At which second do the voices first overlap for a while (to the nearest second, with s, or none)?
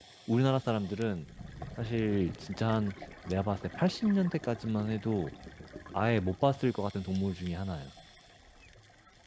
none